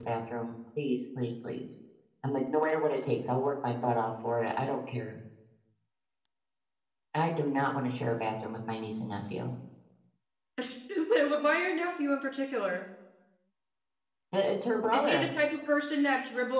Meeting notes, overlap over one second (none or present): none